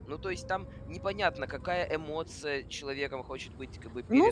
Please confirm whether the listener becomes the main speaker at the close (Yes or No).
Yes